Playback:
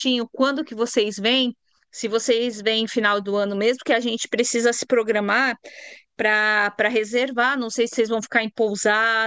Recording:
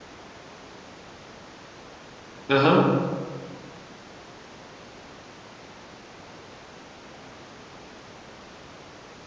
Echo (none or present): none